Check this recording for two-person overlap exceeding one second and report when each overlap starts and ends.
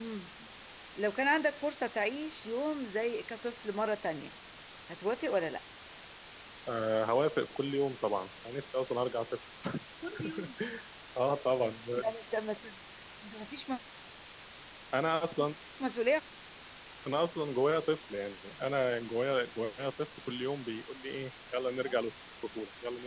none

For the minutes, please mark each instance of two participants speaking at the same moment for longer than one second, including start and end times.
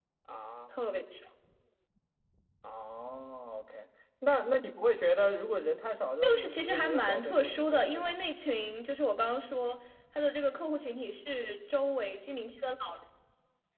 6.2-8.2

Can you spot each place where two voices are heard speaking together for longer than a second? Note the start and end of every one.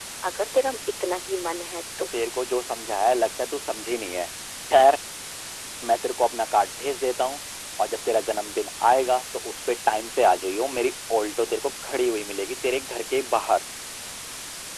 none

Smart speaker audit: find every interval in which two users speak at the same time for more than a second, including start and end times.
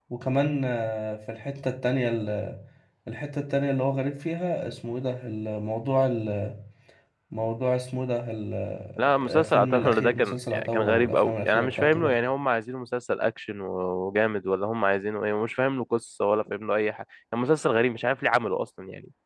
9.2-12.1

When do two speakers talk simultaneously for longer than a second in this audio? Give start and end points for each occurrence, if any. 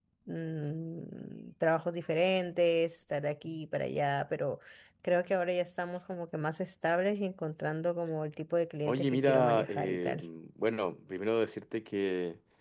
8.9-10.2

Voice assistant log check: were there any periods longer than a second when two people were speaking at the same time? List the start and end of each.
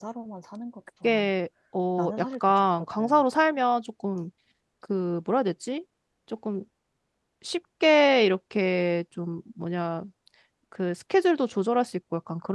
2.0-3.2

